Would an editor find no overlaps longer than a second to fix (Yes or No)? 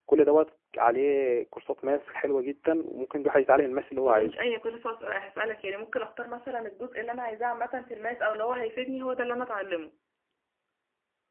Yes